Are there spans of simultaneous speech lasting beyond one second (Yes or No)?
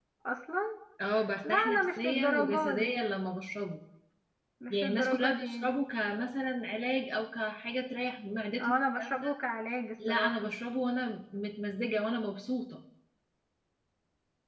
Yes